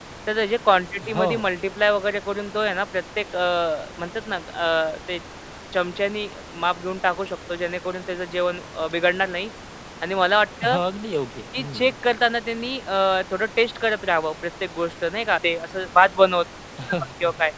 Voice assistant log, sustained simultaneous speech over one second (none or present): none